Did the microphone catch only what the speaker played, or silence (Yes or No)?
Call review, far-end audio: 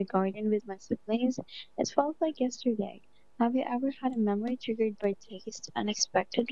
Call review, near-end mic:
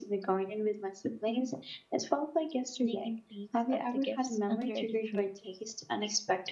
No